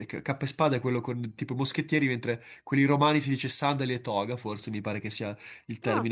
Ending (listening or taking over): listening